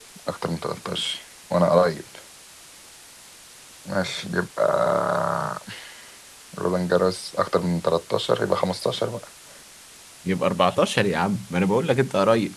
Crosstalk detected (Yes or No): No